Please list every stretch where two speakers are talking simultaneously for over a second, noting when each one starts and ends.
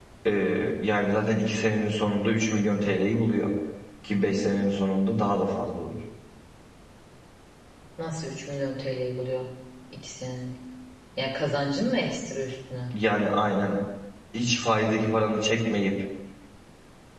none

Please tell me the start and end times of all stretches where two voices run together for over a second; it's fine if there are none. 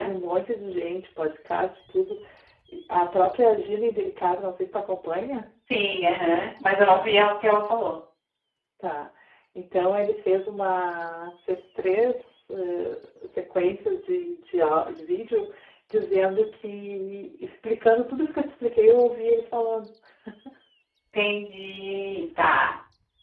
none

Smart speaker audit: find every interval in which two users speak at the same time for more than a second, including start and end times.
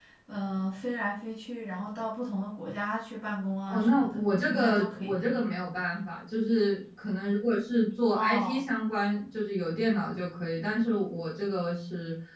3.7-5.1

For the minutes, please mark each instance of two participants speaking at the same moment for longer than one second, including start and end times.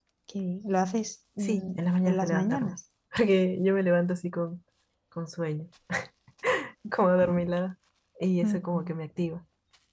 1.4-2.8

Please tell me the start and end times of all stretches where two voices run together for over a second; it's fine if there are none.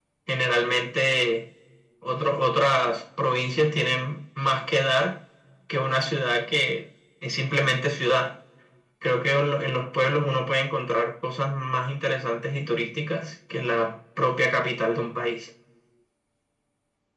none

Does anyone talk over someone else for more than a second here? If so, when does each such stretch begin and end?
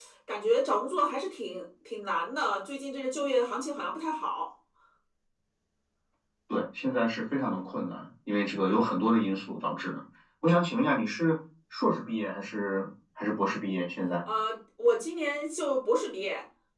none

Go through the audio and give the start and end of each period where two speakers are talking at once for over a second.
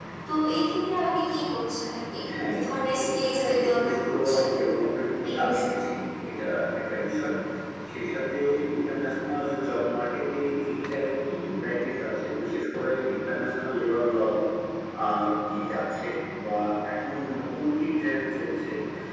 3.0-4.4

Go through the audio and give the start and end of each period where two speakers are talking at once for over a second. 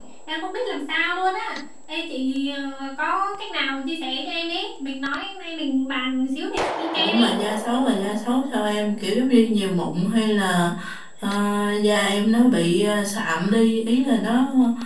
none

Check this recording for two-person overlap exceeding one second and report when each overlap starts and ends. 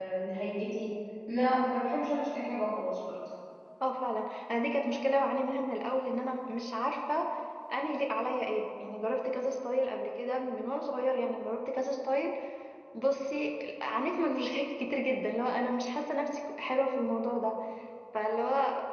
none

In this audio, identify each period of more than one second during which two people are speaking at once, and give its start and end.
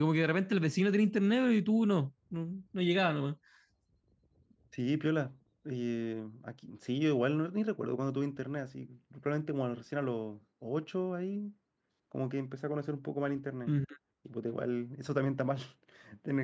none

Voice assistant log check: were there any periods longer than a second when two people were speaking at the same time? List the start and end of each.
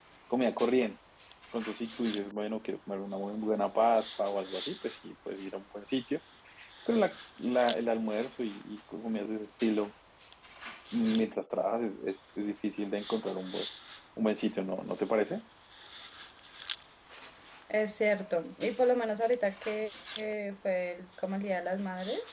none

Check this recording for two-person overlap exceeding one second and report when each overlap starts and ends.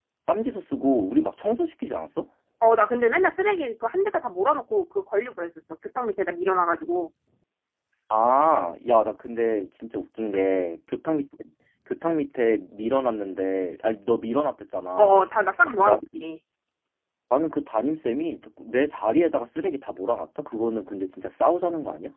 none

